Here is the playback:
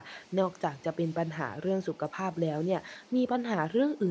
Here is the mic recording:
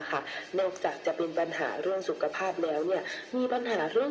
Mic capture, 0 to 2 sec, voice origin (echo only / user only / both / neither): echo only